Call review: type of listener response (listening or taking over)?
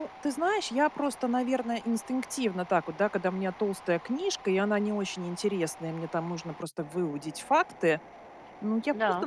listening